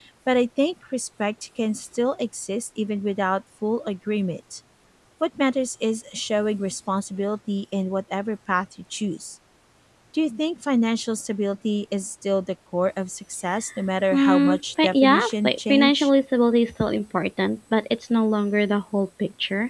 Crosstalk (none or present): present